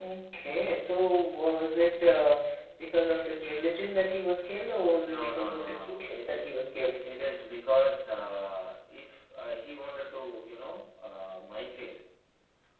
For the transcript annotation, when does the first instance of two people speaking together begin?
5.0 s

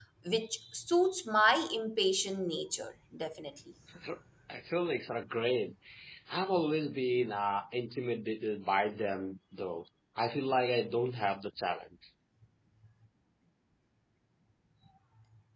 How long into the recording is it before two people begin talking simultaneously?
none

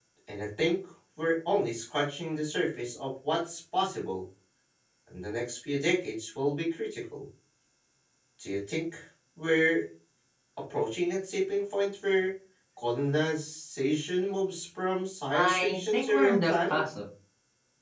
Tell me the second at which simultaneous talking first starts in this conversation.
15.3 s

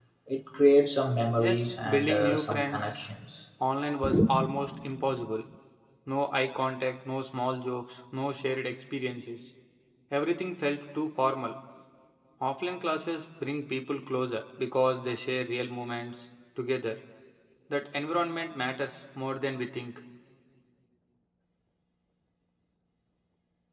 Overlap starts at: 1.4 s

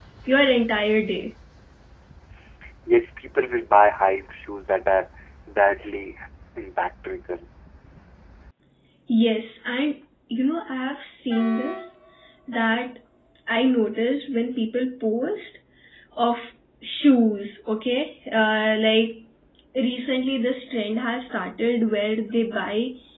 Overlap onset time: none

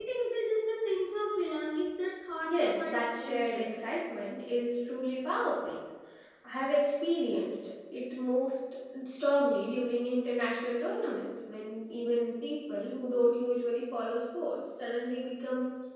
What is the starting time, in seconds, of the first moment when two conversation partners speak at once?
2.5 s

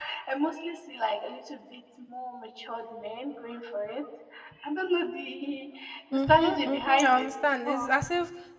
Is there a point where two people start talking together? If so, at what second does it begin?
6.1 s

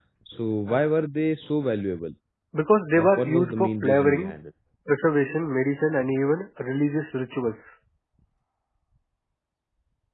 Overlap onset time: 2.9 s

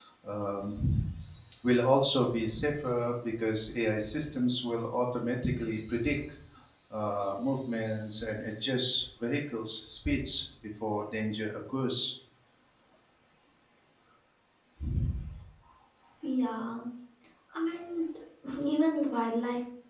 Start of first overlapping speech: none

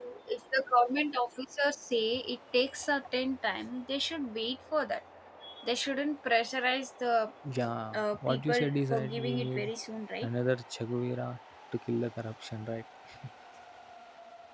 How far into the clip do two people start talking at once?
7.9 s

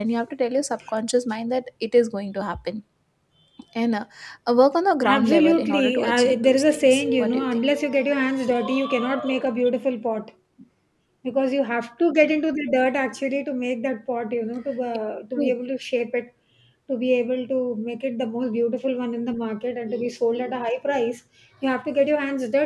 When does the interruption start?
5.0 s

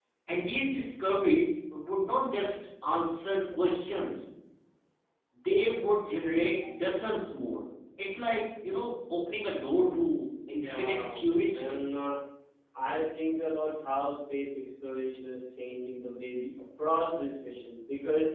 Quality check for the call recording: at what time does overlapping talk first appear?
10.5 s

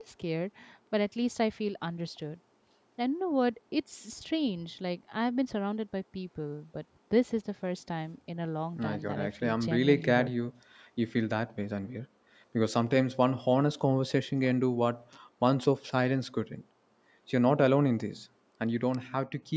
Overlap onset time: 8.8 s

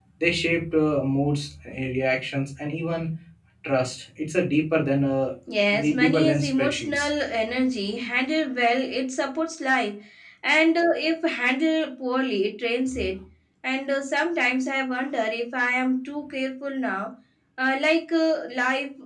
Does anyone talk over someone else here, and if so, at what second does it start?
5.7 s

